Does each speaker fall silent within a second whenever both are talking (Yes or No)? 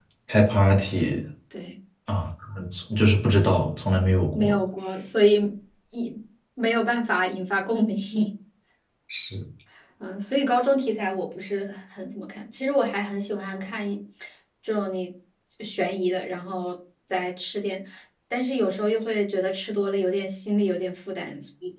Yes